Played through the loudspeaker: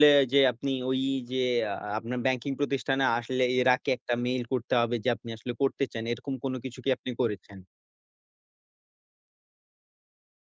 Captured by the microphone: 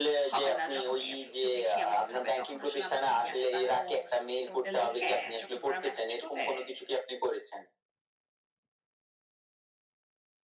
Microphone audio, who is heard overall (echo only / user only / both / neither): both